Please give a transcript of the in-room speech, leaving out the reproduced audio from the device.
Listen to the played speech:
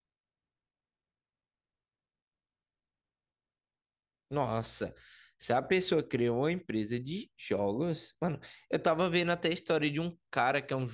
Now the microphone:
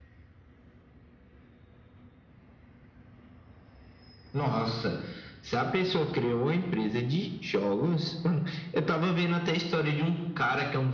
none

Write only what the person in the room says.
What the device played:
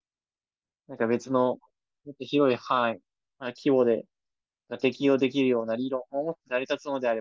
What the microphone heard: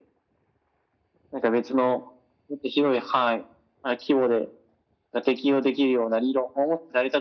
none

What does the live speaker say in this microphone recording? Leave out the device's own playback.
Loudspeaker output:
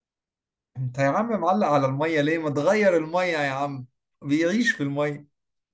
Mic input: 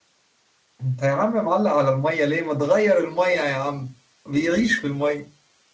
none

